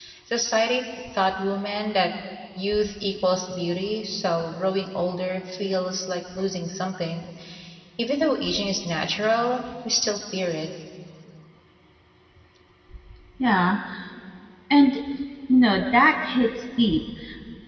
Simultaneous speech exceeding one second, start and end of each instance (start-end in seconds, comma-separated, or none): none